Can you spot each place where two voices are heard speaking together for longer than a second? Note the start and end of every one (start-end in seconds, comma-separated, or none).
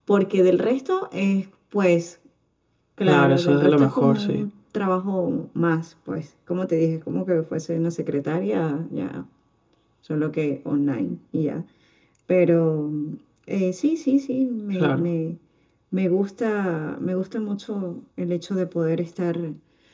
3.1-4.4